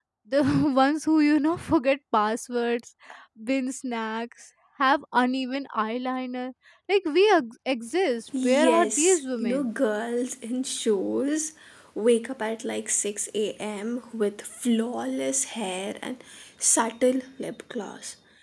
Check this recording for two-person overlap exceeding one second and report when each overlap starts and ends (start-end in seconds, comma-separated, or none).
8.4-9.7